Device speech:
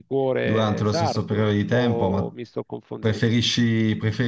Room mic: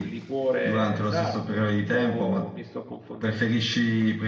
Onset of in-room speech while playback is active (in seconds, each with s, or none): none